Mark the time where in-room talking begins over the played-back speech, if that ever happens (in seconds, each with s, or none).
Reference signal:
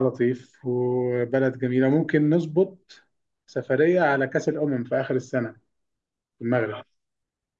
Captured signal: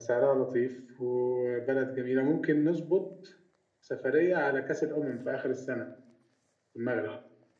none